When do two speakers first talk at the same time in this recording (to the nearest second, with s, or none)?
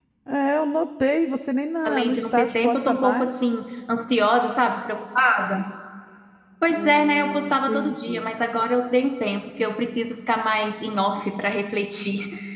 2 s